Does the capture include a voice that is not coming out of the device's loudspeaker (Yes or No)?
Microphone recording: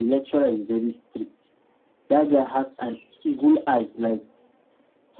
No